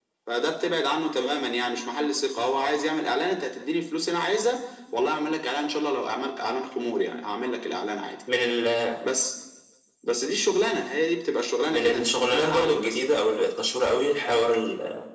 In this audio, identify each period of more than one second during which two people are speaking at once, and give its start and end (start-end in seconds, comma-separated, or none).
11.7-13.0